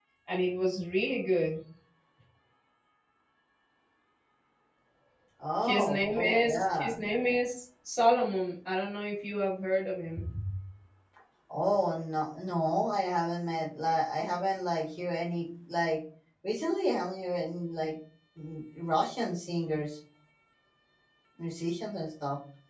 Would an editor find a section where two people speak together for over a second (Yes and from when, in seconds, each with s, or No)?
Yes, from 5.6 s